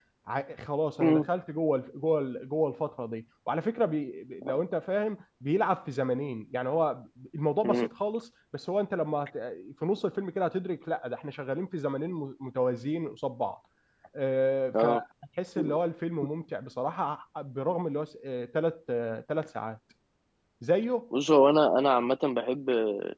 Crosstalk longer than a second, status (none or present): none